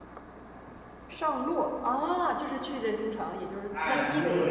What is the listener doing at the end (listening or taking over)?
taking over